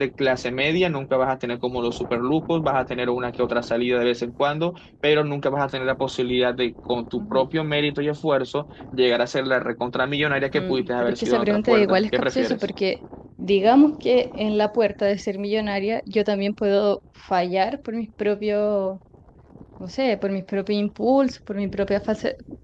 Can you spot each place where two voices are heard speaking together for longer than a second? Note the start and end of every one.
10.5-12.6

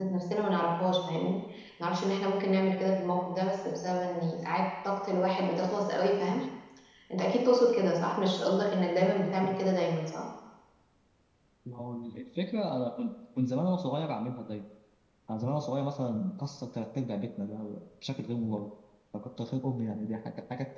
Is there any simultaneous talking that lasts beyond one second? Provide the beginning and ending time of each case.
none

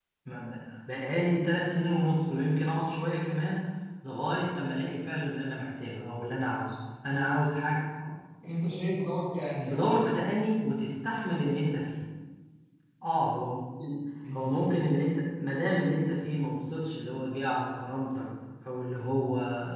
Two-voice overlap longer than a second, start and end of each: none

